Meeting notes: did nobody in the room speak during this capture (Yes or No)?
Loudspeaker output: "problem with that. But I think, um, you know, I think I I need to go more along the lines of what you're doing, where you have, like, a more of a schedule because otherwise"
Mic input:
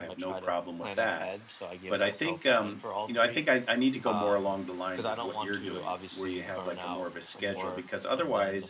No